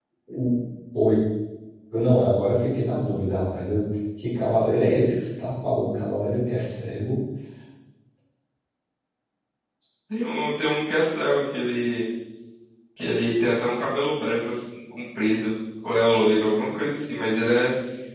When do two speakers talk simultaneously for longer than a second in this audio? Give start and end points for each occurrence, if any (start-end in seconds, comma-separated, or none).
none